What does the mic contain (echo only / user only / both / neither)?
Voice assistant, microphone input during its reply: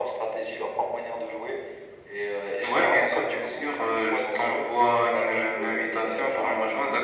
echo only